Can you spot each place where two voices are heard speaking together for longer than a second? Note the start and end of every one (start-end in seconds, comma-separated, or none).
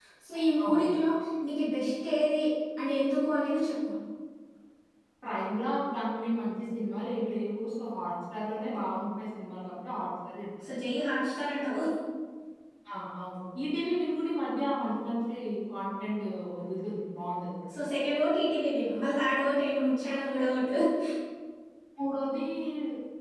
none